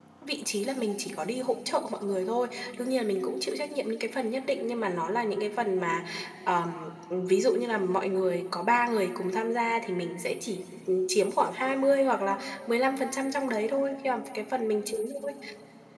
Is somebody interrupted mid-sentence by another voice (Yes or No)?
No